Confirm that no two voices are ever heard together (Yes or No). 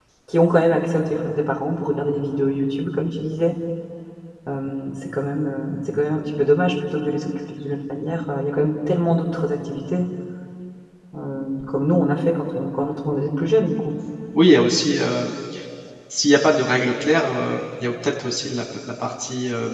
Yes